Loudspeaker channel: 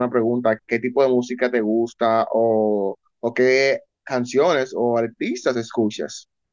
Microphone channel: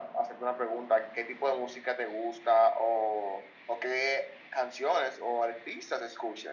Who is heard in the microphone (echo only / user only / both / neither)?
echo only